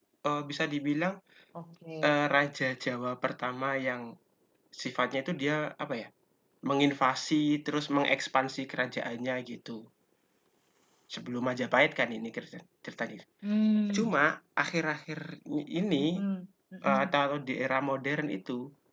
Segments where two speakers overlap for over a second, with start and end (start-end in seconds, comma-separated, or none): none